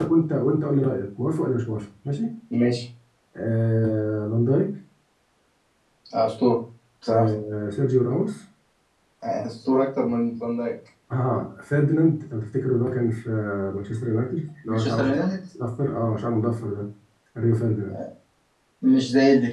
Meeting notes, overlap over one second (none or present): none